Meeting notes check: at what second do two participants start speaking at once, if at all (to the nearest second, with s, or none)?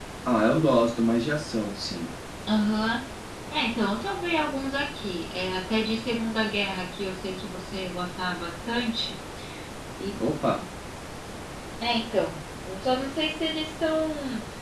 none